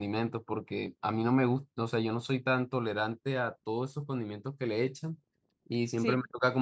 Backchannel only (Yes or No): Yes